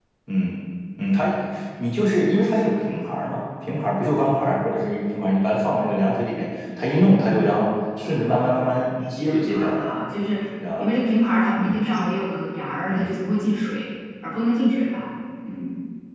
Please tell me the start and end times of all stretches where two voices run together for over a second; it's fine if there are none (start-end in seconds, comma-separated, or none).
8.2-9.9